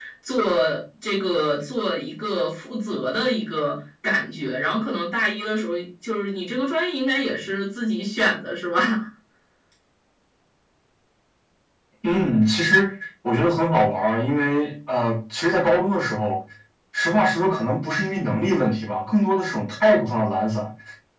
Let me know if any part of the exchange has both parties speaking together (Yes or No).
No